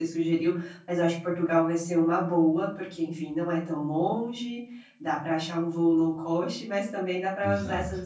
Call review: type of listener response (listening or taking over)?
listening